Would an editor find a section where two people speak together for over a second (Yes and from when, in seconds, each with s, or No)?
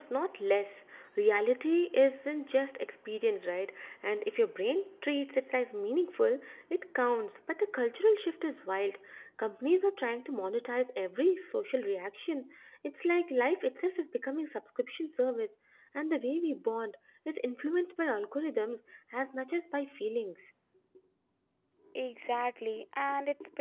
No